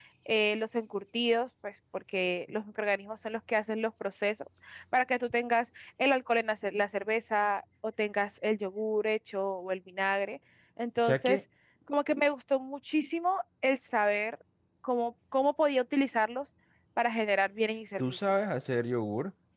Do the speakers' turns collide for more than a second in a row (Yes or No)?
No